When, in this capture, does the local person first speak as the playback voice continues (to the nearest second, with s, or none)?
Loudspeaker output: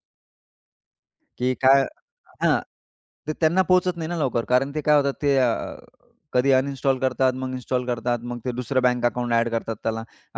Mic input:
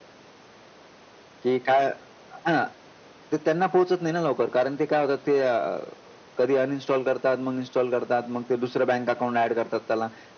none